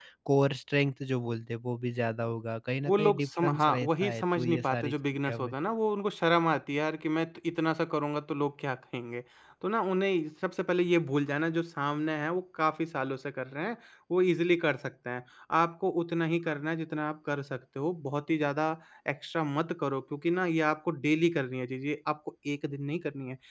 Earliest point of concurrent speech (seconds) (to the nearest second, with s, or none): 3 s